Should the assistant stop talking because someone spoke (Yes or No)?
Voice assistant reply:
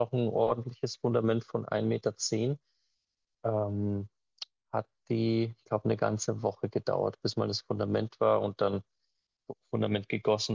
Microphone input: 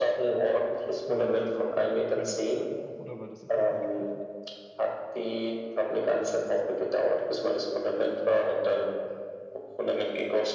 Yes